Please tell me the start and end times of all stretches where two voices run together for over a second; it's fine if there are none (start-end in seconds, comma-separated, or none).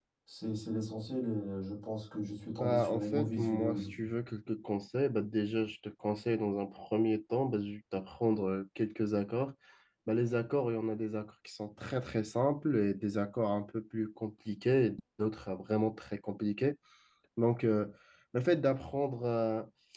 2.6-3.9